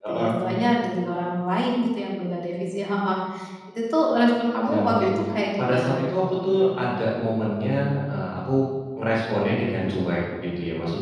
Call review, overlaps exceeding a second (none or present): none